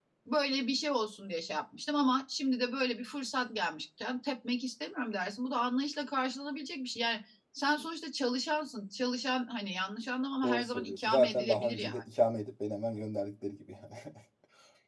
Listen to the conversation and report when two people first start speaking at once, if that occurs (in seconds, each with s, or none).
10.4 s